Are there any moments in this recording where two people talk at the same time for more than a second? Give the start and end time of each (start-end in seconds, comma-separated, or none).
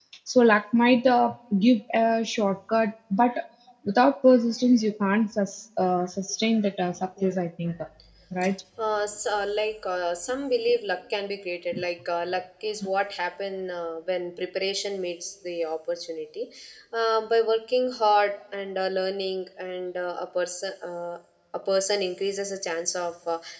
none